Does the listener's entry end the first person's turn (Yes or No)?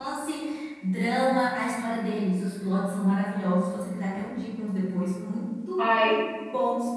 No